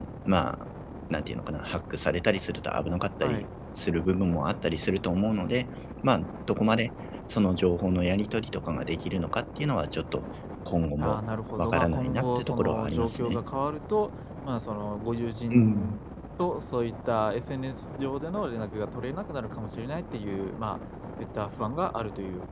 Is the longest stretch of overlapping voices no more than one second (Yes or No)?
No